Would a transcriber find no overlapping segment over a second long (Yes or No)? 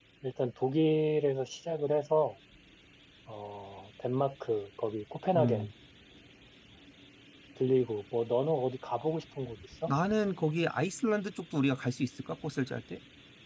Yes